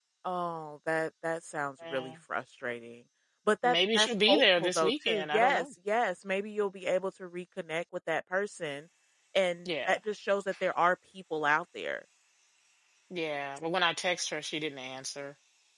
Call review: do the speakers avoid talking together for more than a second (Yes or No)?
No